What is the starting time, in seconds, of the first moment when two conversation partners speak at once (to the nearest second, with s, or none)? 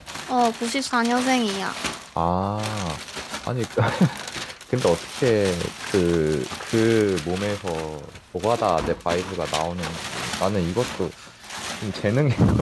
none